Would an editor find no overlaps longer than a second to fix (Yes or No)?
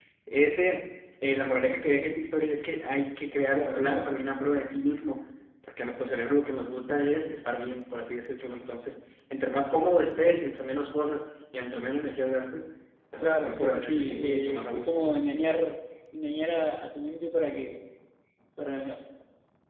No